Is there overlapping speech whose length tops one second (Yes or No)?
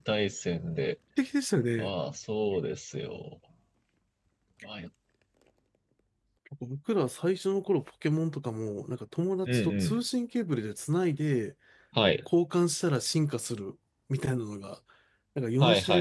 No